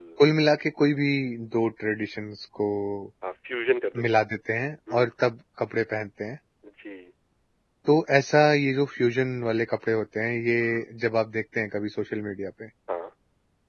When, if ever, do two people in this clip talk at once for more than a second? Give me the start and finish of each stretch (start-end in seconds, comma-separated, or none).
none